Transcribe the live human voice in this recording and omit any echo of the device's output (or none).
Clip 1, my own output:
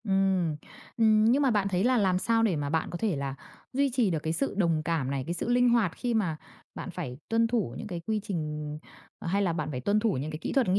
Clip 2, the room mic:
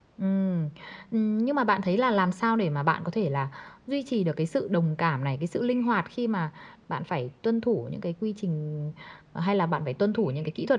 none